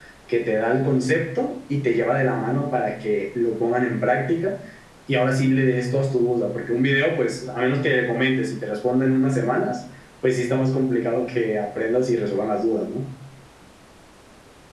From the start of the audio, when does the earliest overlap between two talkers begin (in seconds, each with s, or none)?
none